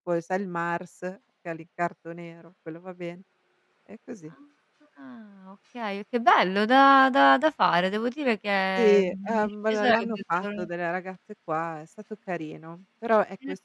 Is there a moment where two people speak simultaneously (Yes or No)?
Yes